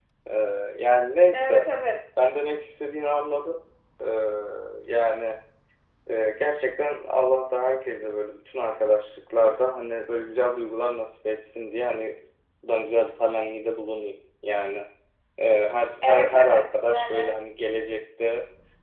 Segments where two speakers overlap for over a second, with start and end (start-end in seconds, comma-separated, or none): 16.0-17.3